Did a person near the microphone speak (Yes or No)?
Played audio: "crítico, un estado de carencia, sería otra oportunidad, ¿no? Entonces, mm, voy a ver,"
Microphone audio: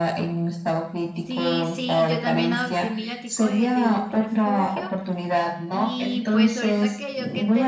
Yes